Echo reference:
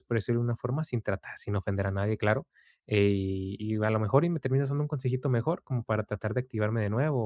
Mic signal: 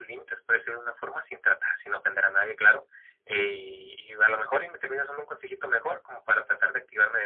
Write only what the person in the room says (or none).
none